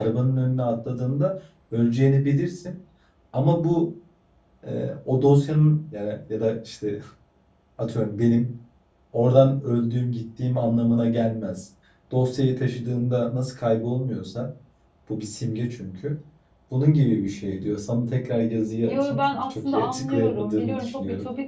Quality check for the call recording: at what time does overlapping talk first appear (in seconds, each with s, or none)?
18.9 s